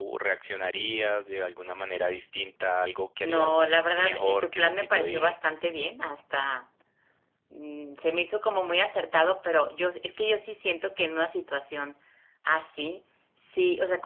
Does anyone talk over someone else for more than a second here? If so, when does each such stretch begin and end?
3.2-5.4

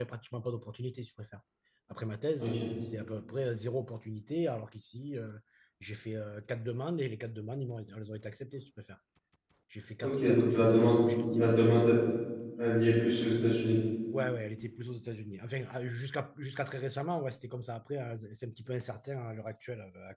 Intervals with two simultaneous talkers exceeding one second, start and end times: 10.0-11.5

